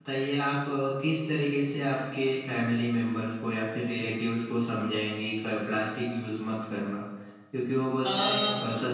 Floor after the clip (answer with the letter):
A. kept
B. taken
A